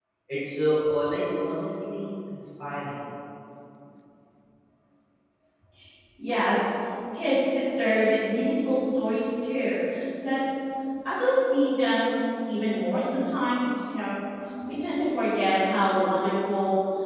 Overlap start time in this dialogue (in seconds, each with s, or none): none